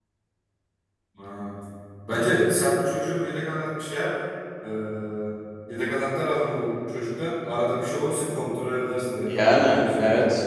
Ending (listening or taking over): taking over